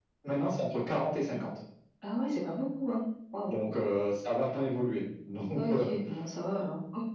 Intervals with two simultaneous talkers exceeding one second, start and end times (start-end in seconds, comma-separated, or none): none